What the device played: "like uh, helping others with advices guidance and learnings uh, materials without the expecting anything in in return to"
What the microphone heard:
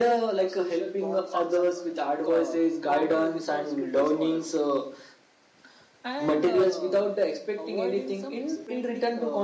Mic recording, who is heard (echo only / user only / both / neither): both